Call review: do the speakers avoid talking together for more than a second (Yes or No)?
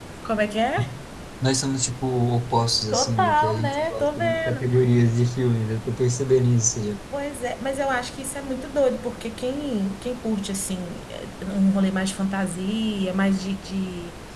No